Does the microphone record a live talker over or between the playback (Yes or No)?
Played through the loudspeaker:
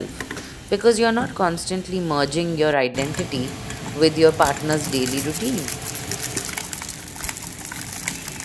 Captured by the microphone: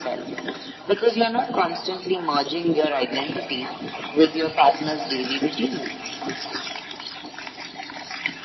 No